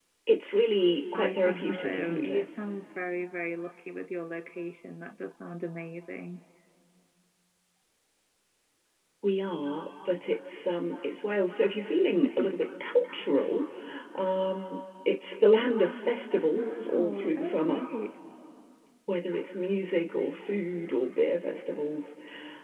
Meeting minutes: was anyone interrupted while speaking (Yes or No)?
Yes